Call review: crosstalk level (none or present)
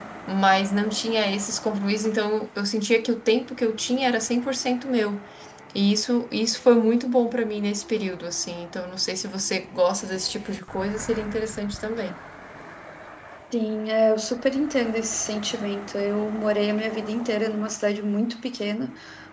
none